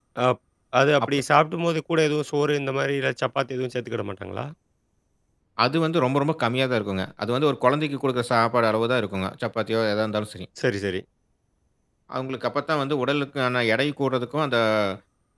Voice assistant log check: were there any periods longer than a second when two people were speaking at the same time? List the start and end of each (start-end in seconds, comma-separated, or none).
none